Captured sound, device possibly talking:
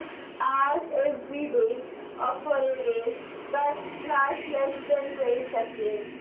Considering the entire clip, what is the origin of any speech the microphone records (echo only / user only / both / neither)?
echo only